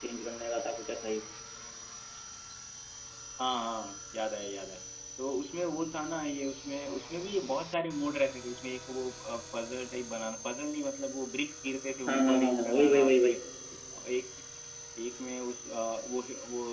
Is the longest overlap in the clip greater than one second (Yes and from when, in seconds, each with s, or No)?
Yes, from 12.1 s